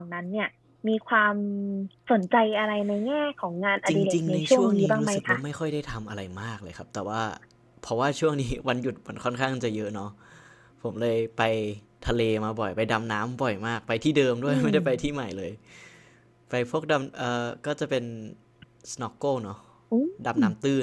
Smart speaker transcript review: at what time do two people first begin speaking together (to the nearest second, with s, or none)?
4 s